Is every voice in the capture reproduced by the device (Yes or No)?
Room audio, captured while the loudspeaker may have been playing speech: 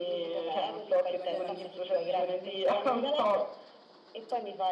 No